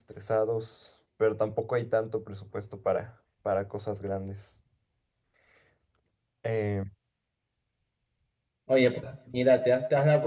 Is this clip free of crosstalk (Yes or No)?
Yes